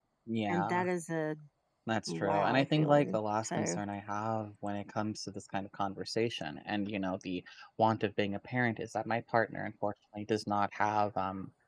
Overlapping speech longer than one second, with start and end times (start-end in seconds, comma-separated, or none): 2.1-3.8